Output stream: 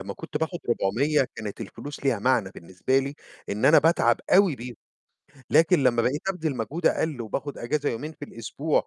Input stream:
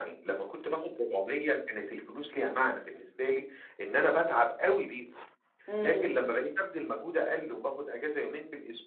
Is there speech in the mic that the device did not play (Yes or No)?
Yes